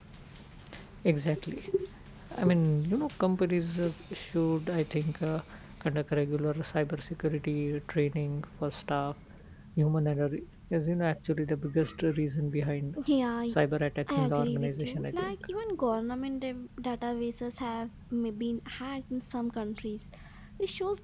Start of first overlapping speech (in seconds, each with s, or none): 14.1 s